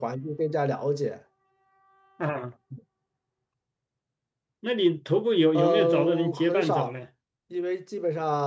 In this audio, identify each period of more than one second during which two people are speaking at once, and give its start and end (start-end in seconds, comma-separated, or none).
5.5-6.9